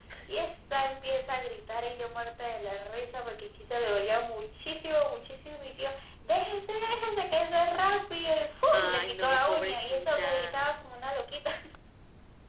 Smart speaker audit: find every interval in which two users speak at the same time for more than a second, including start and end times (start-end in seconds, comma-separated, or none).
8.7-10.6